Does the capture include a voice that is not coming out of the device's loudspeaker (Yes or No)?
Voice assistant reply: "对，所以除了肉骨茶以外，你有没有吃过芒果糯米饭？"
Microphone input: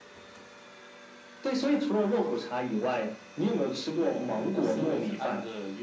Yes